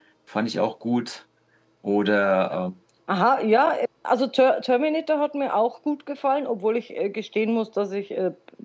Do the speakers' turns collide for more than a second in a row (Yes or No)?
No